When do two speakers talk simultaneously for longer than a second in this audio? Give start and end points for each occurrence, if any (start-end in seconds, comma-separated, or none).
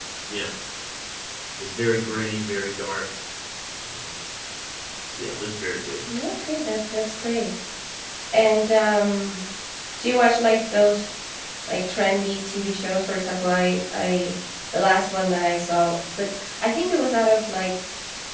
none